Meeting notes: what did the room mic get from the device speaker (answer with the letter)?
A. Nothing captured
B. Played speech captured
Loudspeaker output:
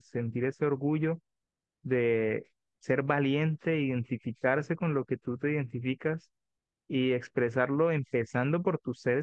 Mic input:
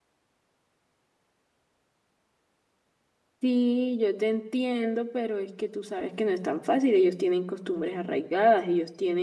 A